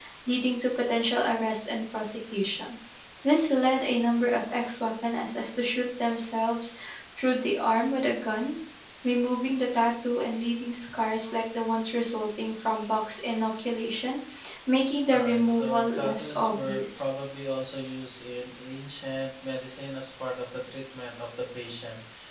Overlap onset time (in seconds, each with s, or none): 15.1 s